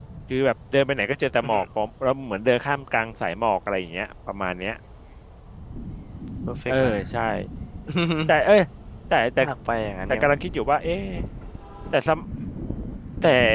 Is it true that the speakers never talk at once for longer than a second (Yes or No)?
Yes